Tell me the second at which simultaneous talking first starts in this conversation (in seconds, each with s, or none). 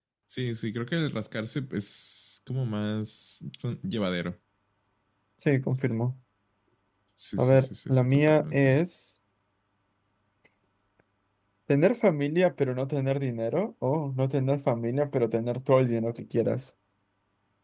7.4 s